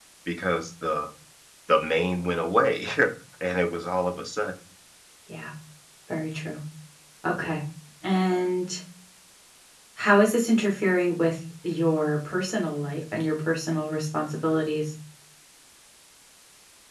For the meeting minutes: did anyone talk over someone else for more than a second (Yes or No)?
No